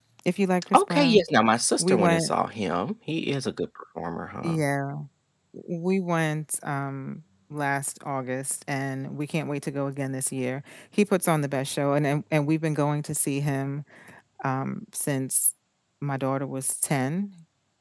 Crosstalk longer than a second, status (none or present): none